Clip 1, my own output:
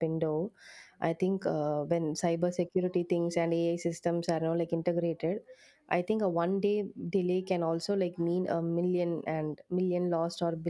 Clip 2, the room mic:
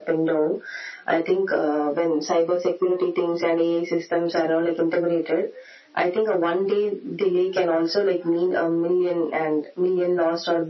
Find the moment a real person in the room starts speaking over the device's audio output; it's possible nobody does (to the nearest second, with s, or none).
none